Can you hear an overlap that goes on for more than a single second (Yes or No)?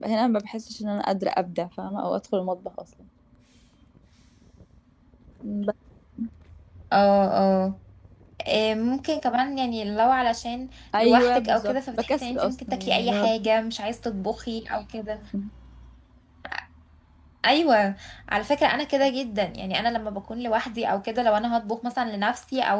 Yes